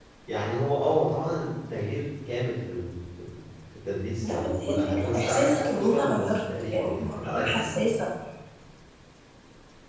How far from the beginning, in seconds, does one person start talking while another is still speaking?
4 s

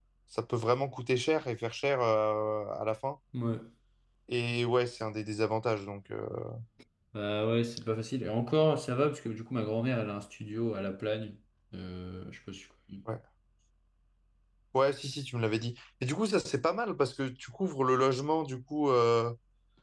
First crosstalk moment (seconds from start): none

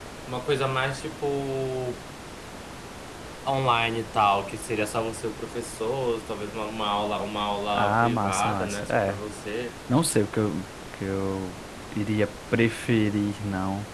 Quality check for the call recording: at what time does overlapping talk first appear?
8 s

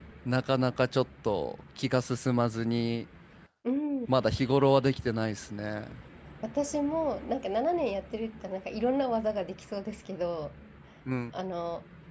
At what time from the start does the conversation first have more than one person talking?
none

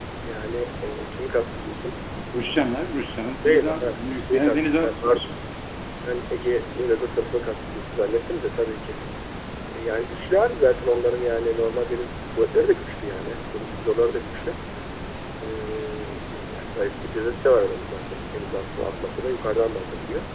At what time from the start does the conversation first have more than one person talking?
3 s

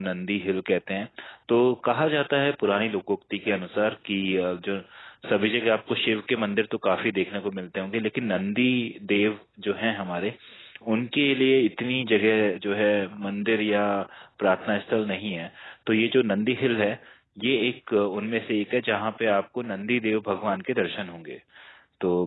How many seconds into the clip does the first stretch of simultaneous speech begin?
none

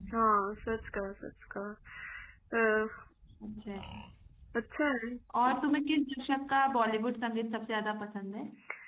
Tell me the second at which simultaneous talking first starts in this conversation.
none

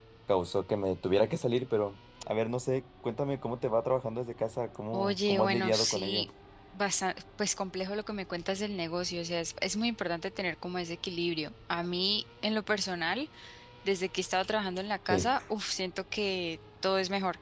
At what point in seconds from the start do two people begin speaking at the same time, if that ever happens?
5 s

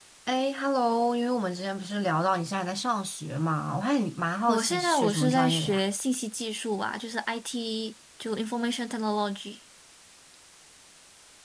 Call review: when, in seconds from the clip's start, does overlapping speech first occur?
4 s

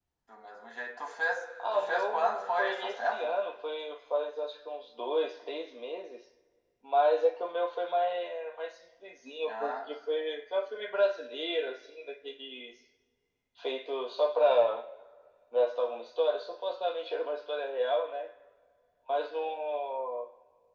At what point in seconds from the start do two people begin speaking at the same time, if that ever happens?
2 s

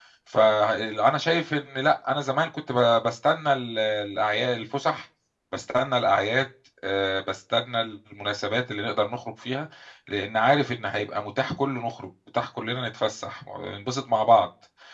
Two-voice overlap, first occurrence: none

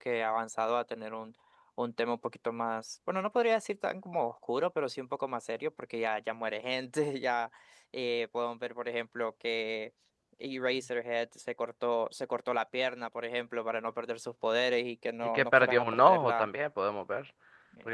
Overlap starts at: 15 s

